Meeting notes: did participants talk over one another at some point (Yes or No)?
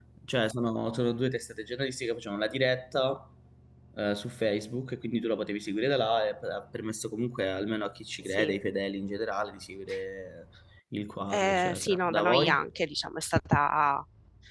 Yes